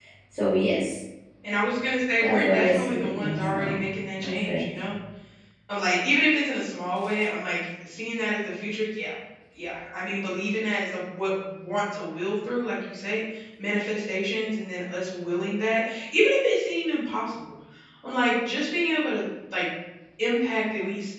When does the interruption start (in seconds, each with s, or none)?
2.2 s